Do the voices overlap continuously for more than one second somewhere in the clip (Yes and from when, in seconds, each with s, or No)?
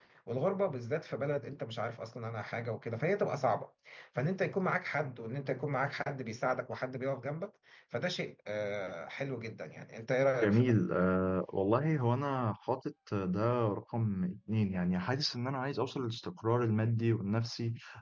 No